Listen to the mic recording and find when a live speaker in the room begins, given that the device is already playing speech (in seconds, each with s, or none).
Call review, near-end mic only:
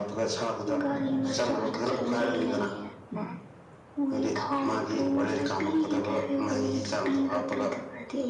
1.3 s